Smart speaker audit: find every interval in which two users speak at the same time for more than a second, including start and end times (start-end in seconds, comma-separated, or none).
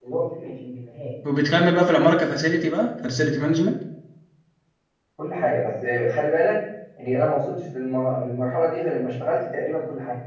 none